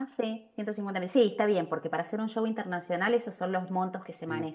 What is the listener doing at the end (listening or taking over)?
taking over